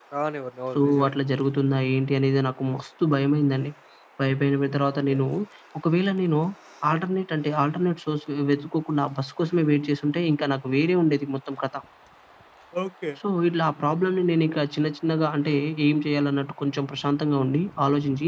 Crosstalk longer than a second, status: none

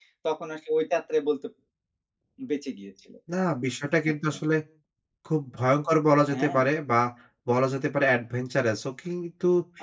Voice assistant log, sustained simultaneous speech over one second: none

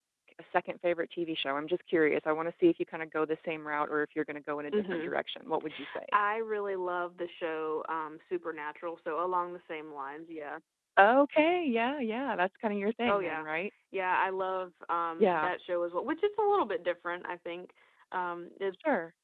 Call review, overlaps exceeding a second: none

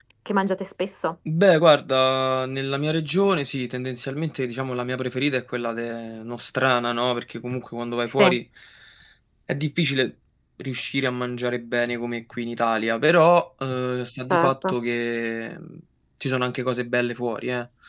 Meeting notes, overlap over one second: none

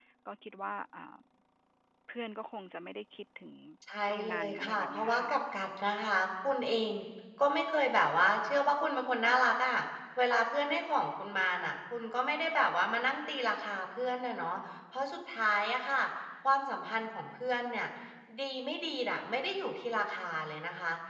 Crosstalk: present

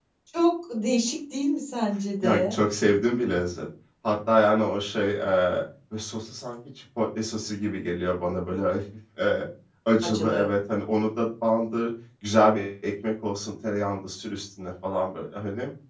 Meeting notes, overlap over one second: none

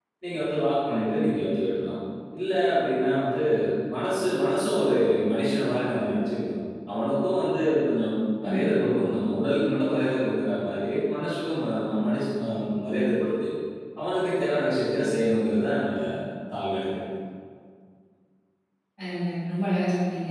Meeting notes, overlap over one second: none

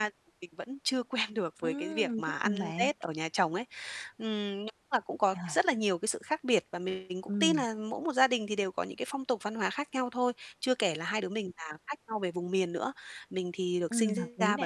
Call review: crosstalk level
present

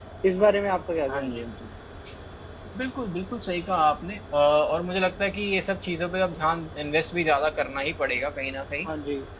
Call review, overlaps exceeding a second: none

